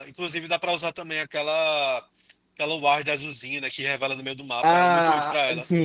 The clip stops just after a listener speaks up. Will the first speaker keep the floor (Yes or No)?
No